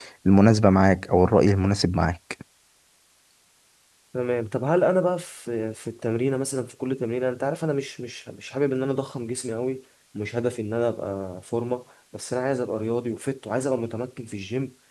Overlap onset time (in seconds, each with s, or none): none